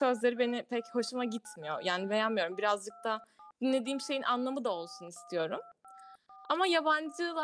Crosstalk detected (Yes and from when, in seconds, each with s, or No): No